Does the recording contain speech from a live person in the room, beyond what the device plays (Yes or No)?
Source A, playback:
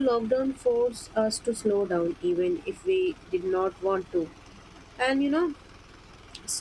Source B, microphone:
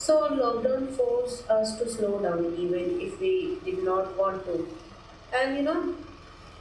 No